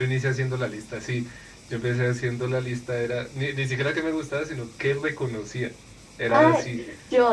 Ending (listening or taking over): taking over